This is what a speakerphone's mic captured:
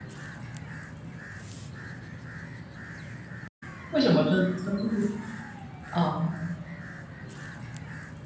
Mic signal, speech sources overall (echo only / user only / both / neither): user only